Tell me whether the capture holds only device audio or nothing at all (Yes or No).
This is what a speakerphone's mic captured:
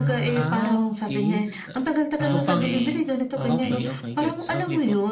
No